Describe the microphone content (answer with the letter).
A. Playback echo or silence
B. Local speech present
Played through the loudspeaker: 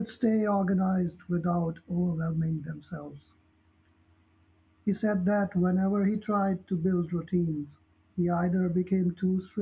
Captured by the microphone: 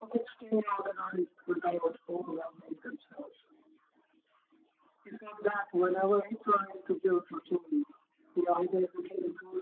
A